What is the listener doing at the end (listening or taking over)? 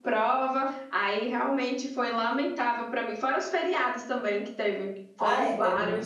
taking over